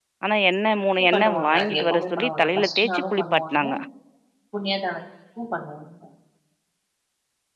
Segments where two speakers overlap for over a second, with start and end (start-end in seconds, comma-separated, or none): 1.0-3.6